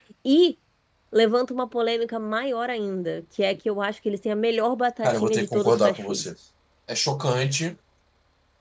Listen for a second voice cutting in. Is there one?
Yes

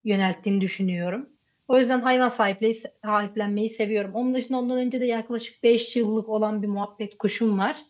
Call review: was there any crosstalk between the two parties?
No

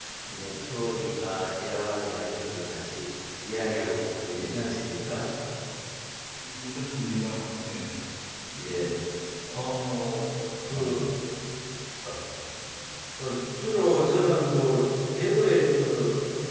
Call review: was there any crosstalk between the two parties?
No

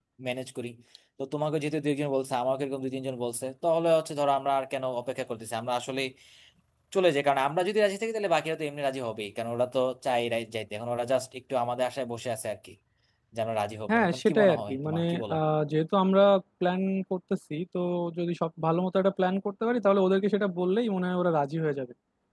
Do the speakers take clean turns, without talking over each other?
No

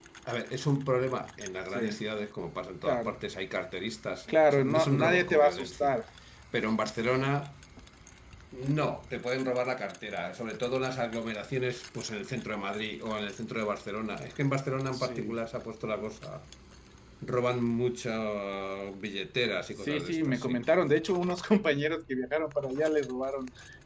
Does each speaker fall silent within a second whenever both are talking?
No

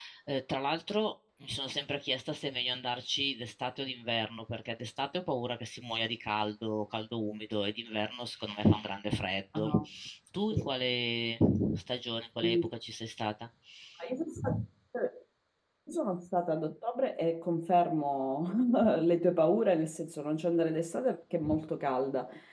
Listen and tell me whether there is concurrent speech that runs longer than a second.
No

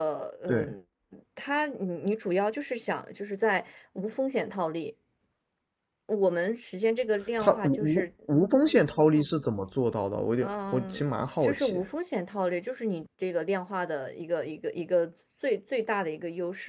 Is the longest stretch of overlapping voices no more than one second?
No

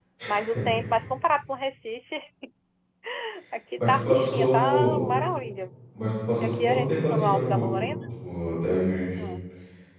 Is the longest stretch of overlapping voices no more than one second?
No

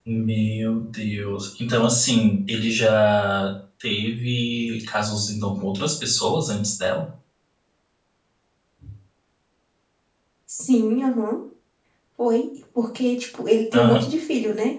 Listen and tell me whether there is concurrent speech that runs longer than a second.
No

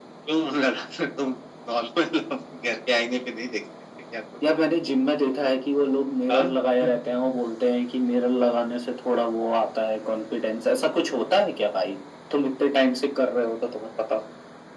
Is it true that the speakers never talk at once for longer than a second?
Yes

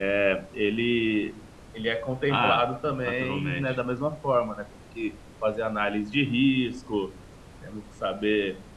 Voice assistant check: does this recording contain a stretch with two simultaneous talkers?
Yes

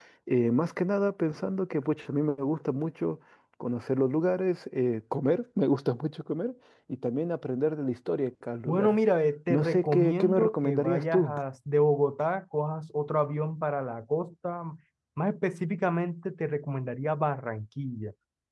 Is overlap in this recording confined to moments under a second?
No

